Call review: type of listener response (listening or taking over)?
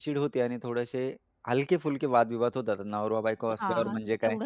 taking over